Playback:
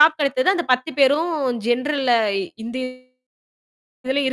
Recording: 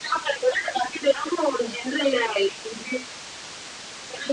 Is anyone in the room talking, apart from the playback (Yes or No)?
No